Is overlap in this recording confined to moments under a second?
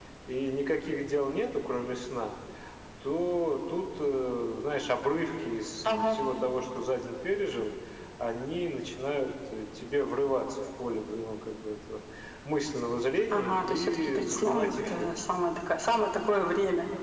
No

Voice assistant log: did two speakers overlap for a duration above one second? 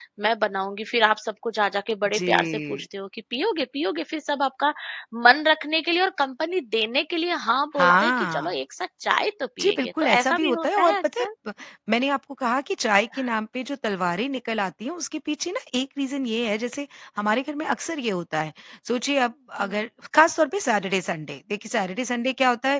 Yes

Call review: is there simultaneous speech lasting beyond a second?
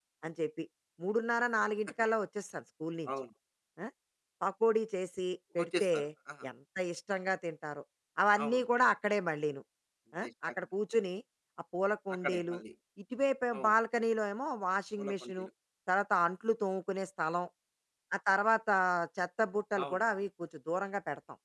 No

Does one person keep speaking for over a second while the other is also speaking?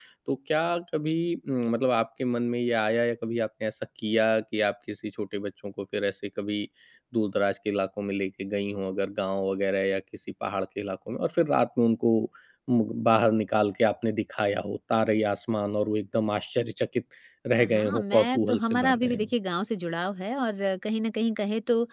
Yes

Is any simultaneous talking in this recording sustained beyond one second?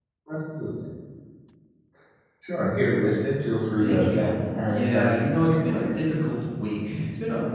Yes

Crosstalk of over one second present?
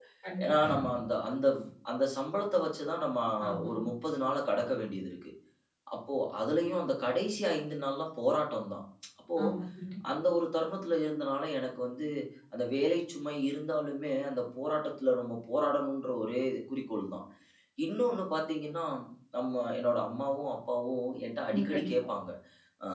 No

